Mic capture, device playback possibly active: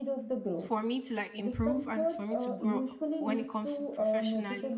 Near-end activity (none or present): present